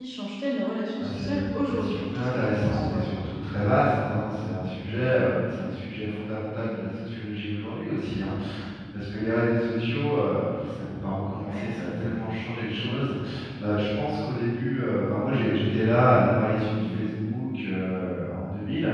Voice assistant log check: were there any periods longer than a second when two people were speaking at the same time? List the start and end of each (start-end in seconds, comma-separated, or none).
1.0-3.0